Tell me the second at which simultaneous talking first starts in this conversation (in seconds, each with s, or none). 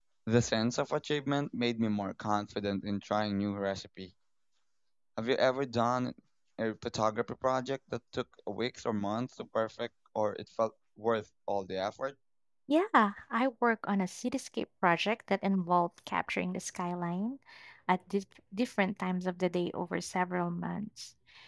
none